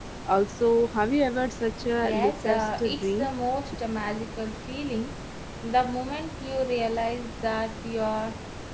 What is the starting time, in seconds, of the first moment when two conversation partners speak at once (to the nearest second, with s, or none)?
2 s